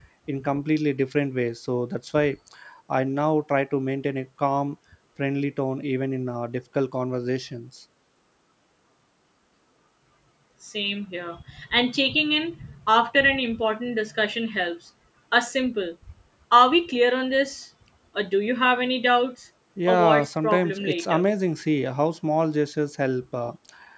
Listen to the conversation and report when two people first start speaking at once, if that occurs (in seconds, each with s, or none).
19.8 s